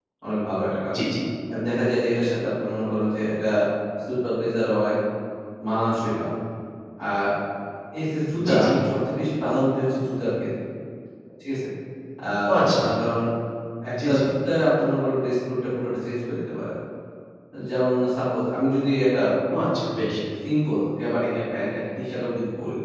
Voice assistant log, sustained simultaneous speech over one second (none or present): none